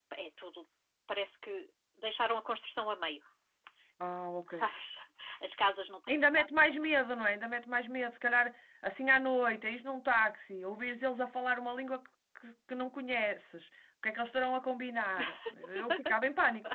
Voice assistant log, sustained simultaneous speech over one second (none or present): none